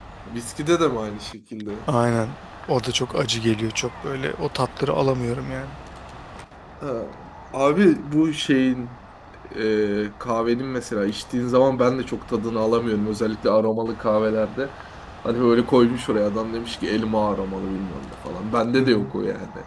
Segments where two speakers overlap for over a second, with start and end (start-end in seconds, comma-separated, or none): none